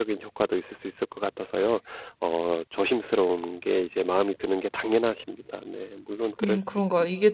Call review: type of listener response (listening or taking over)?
taking over